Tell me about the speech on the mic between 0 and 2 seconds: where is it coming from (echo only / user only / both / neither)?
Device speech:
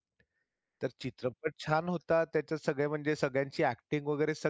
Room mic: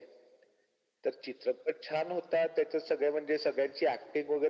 echo only